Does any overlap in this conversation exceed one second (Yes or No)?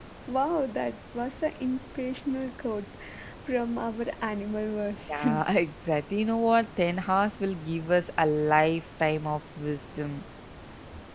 No